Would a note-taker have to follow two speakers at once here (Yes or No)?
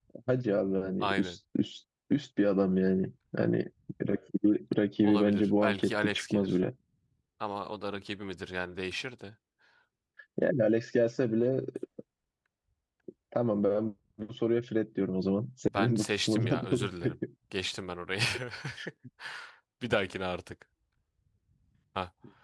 Yes